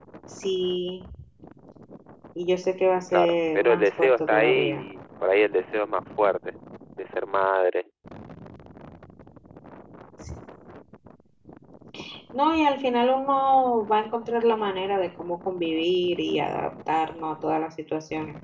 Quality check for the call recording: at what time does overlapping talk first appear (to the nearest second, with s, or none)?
3 s